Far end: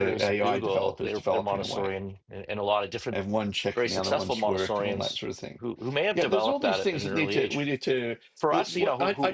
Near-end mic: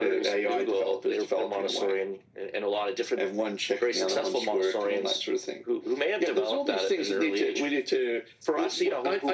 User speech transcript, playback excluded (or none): none